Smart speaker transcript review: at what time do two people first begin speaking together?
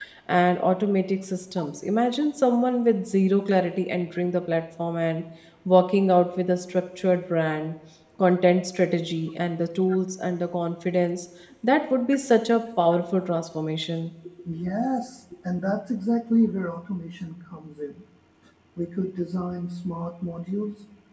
none

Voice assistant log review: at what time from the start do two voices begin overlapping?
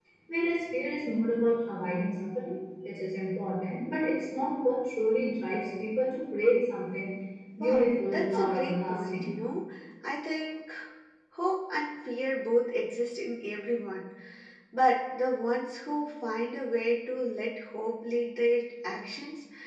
7.6 s

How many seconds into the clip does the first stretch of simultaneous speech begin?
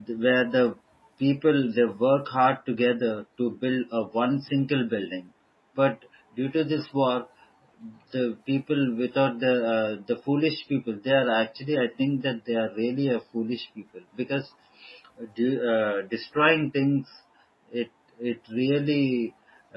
none

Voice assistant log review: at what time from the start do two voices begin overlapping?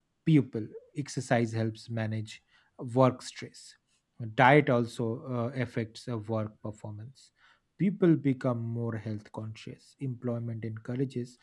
none

